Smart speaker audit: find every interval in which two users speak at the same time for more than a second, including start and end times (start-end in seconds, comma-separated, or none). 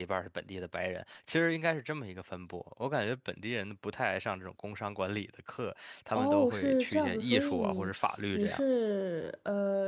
6.1-7.9